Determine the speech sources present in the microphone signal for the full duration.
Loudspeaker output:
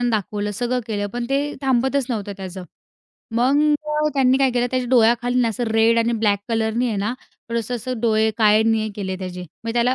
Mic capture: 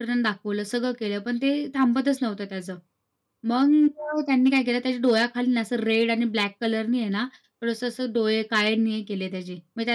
echo only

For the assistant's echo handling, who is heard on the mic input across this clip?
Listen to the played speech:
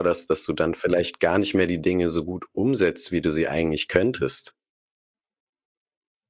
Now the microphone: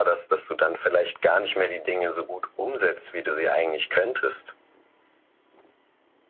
echo only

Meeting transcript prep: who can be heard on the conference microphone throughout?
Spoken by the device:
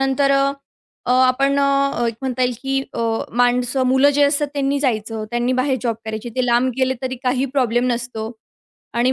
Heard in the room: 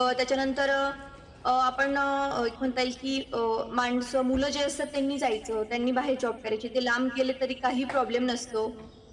echo only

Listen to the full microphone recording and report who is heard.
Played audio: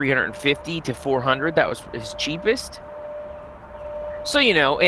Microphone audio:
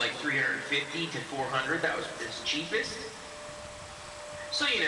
echo only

